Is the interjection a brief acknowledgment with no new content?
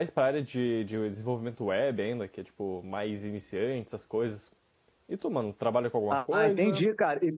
No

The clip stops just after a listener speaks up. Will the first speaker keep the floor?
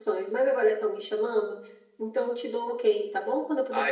No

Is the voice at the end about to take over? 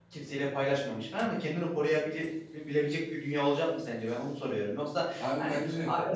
No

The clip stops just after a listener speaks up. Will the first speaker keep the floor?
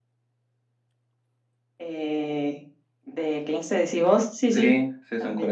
No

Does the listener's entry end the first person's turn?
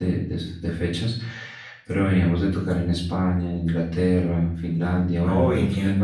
Yes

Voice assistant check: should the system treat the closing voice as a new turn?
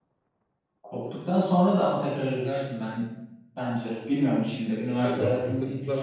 Yes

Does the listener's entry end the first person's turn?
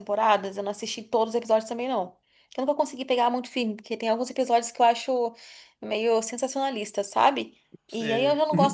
No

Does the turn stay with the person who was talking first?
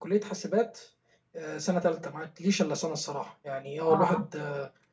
Yes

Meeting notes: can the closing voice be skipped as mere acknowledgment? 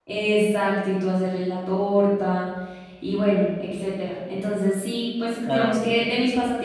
Yes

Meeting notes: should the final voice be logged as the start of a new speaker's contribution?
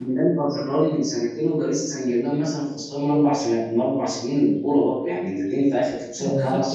Yes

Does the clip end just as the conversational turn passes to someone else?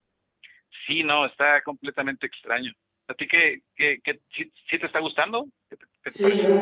Yes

